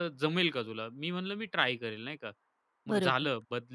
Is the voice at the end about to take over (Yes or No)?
No